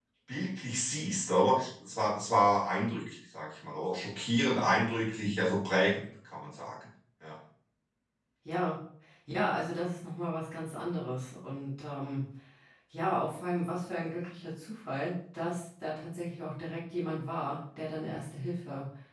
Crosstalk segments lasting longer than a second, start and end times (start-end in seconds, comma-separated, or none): none